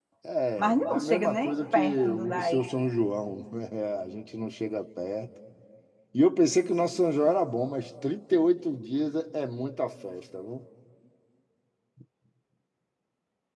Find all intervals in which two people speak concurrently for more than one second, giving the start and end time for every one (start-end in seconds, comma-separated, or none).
0.6-2.6